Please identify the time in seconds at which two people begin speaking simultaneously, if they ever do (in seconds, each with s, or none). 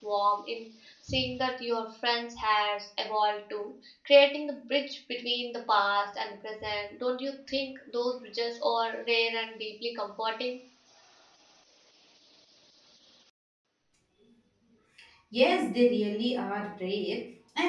none